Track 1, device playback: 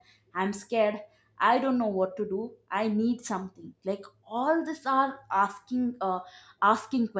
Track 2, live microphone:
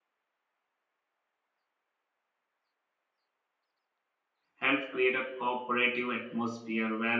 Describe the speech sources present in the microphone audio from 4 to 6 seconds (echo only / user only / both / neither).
user only